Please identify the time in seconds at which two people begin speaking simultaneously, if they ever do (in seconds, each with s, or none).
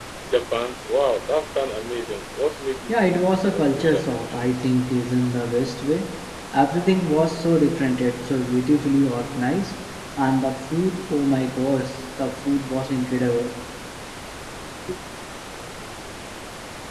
2.9 s